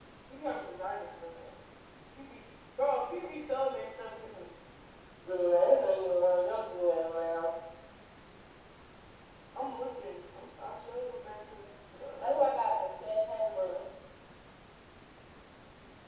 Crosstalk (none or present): present